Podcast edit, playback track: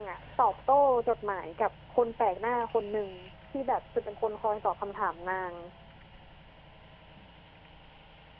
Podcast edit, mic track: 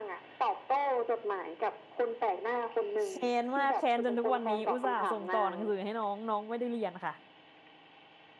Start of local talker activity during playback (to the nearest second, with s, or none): 3 s